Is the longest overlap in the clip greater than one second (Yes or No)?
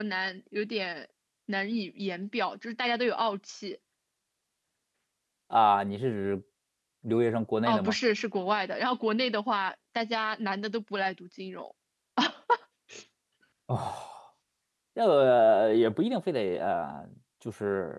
No